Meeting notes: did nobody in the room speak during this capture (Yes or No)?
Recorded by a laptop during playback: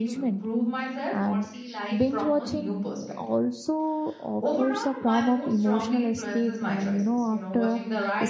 No